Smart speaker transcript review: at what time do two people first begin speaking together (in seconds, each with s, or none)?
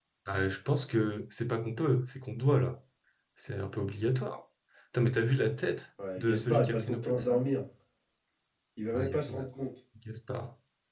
6.2 s